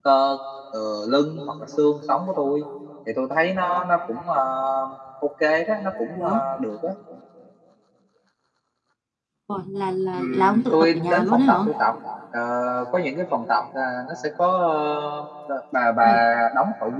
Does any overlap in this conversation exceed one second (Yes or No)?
Yes